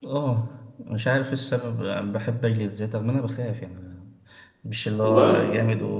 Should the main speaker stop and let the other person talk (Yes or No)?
No